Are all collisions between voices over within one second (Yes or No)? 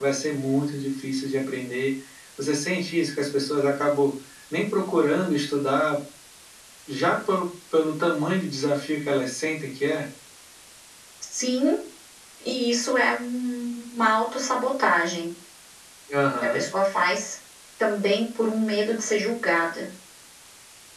Yes